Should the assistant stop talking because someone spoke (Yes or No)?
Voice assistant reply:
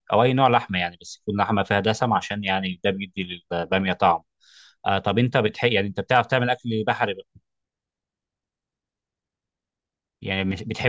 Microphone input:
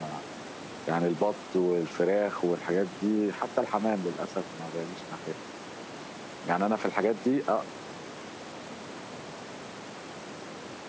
Yes